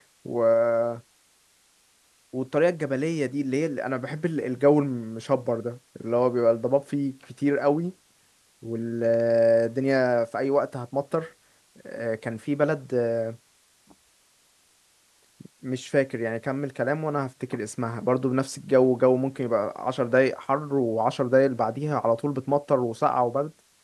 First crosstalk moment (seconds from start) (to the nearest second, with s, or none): none